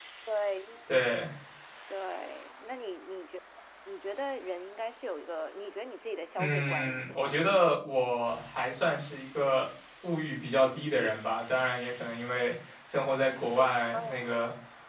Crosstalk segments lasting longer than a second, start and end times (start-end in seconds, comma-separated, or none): 6.4-7.6